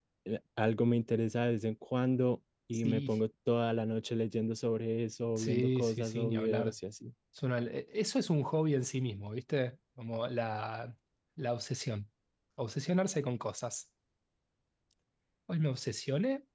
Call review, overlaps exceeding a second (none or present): present